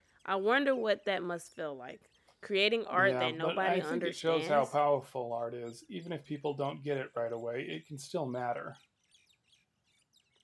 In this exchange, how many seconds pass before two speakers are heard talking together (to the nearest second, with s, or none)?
3 s